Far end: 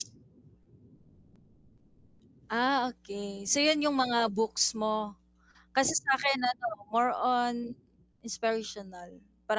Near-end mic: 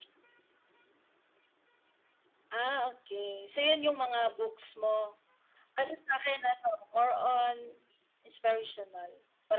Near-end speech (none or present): none